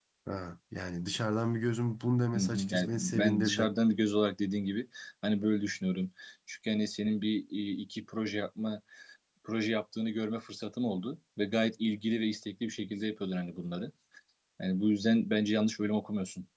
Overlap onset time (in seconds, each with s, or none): 2.3 s